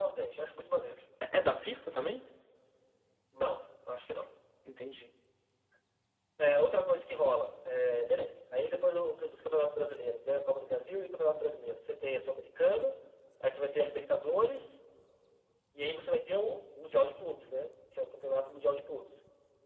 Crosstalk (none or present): none